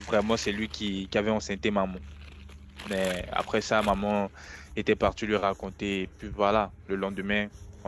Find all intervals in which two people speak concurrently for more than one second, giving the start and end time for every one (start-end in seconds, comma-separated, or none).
none